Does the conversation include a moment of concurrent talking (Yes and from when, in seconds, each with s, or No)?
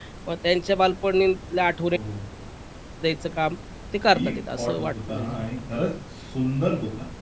Yes, from 4.1 s